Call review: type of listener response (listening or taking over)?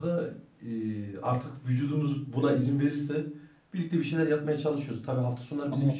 listening